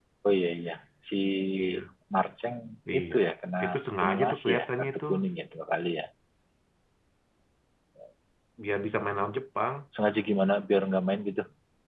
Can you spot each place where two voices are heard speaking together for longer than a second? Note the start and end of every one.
3.6-5.0

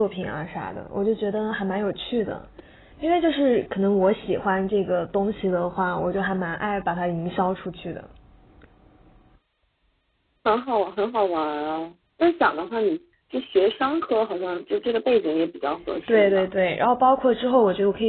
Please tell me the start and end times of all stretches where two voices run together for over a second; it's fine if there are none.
none

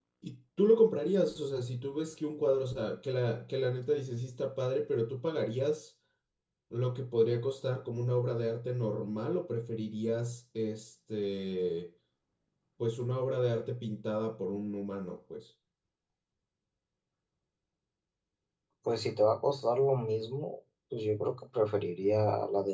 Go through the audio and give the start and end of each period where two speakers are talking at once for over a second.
none

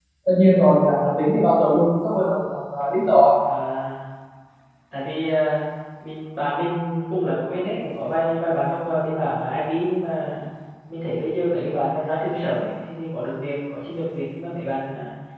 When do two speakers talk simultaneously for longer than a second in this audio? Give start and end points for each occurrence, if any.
none

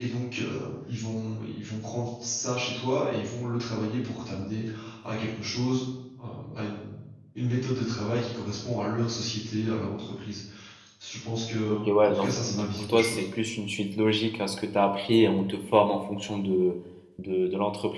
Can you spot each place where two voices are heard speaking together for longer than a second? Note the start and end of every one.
11.7-13.2

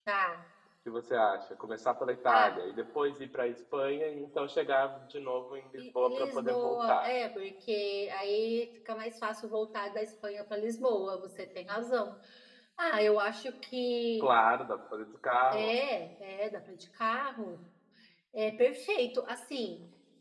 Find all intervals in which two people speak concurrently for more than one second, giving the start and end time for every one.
5.8-7.1

